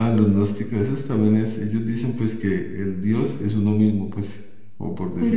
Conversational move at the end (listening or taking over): taking over